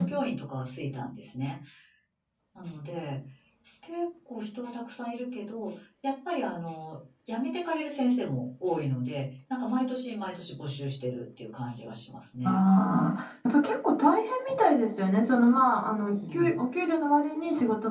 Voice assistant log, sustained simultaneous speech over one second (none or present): none